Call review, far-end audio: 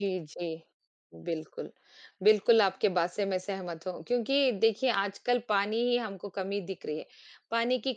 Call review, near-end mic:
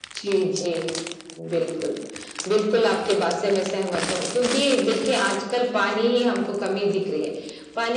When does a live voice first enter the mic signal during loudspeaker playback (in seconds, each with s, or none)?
none